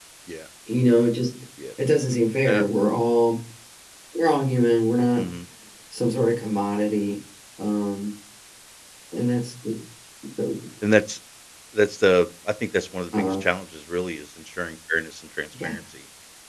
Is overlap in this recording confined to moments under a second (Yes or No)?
Yes